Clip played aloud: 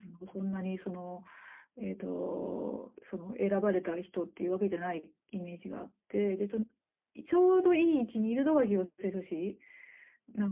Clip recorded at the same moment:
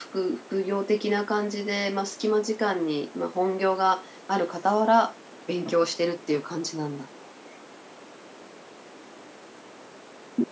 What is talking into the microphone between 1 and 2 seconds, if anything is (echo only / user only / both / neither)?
user only